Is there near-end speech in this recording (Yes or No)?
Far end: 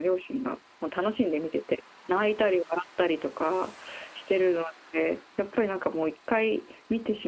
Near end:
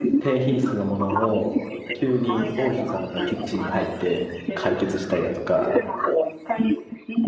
Yes